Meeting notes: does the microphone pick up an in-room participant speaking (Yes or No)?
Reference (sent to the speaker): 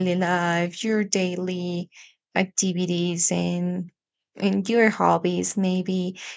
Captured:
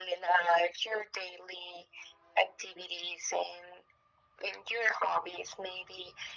No